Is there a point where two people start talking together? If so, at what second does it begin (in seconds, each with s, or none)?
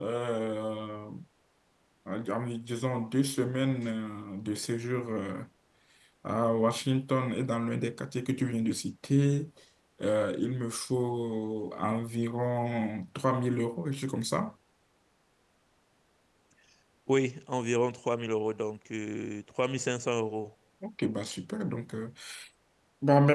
none